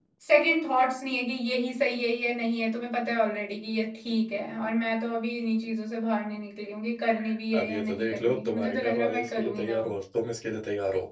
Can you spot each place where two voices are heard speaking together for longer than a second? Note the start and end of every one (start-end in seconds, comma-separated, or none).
7.5-9.8